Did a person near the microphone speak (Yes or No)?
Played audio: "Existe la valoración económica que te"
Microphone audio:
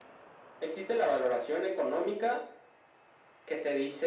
No